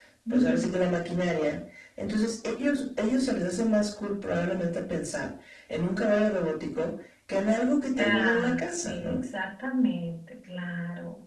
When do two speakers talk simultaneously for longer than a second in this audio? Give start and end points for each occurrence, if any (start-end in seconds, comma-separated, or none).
8.0-9.2